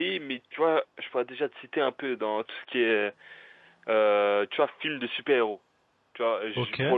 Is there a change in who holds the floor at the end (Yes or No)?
No